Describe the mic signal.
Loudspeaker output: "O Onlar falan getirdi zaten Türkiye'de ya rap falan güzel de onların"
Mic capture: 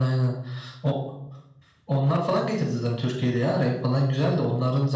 echo only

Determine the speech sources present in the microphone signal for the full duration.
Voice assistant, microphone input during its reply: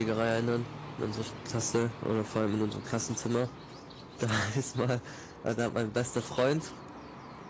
user only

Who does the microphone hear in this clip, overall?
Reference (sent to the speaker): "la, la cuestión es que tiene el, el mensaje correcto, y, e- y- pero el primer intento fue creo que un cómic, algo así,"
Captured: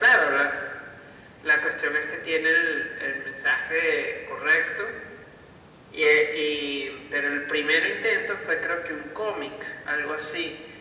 echo only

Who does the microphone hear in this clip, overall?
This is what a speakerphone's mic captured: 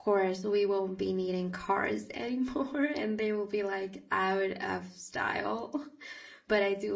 user only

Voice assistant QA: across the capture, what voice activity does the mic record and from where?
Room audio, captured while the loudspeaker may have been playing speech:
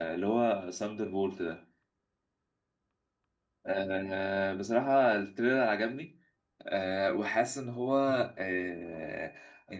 user only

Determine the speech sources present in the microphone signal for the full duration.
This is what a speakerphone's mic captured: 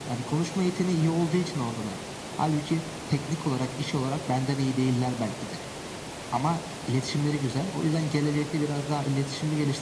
echo only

